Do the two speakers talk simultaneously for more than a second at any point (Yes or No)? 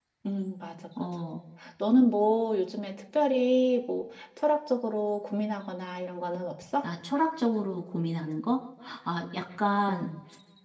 No